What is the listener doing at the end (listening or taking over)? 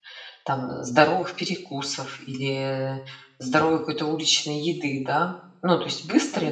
listening